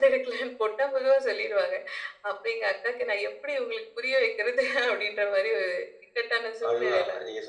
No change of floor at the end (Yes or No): No